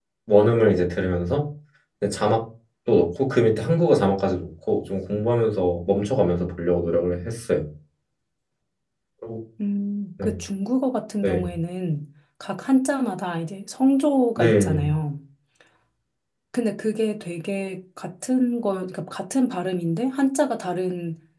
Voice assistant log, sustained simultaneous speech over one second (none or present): none